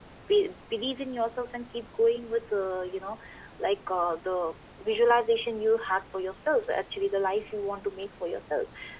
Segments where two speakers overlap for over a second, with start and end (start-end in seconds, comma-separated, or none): none